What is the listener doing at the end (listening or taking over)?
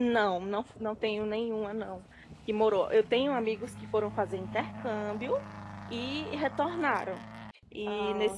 listening